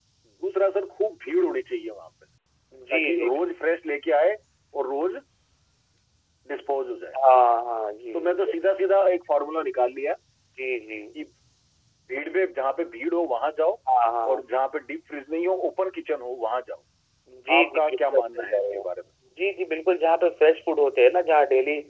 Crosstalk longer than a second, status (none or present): present